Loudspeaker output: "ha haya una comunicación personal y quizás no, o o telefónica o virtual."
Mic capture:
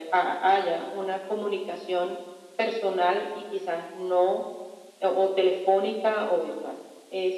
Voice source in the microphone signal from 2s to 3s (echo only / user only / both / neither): echo only